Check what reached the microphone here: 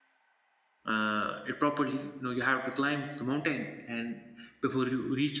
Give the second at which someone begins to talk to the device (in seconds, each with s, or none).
0.9 s